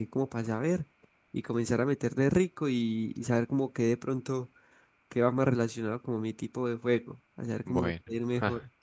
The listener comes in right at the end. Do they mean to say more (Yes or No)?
Yes